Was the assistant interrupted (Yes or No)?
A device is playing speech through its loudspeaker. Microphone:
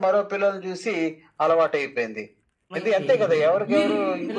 Yes